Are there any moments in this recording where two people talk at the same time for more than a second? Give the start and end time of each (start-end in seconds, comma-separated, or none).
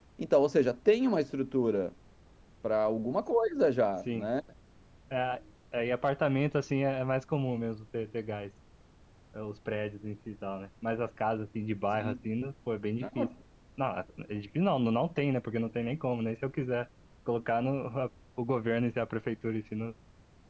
none